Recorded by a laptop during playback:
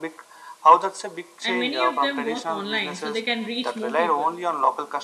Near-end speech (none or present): present